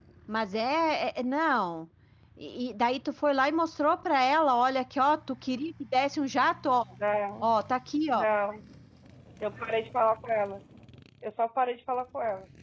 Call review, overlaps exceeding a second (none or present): none